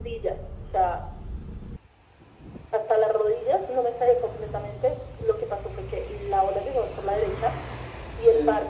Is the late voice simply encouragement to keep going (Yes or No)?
Yes